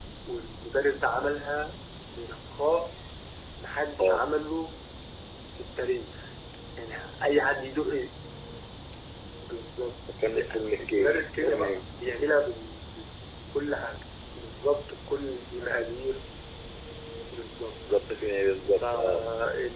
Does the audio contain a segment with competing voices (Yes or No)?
Yes